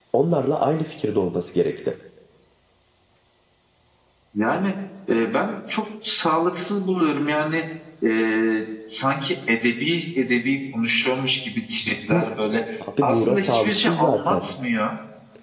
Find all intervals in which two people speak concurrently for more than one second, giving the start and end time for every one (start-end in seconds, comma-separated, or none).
13.0-14.4